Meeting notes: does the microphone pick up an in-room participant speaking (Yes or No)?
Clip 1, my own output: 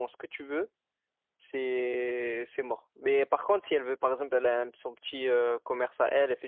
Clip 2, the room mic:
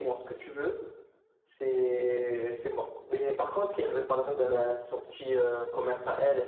No